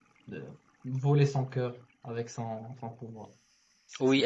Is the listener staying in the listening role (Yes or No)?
No